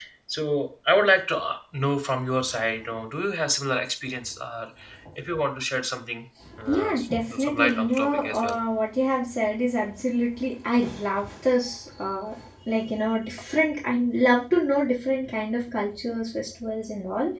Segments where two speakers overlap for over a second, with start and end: 6.7-8.6

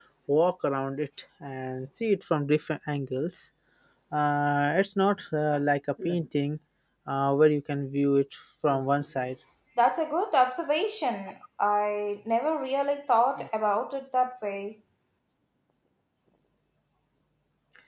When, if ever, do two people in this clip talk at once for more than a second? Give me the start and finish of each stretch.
none

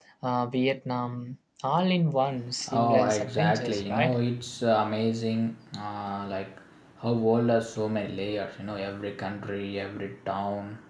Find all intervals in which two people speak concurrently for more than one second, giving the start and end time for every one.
2.7-4.2

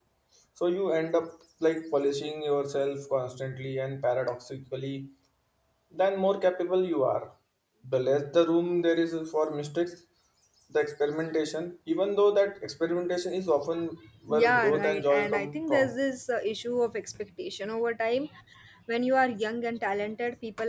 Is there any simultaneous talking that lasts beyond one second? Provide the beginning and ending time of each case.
14.3-15.9

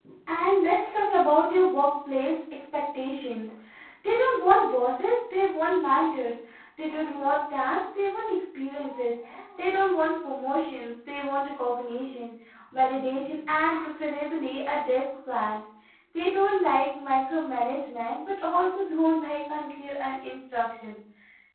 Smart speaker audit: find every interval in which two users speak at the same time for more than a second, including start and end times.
none

